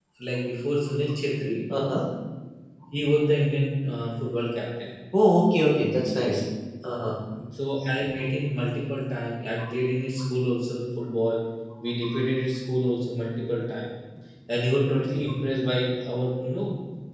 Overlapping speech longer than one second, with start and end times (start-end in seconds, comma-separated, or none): none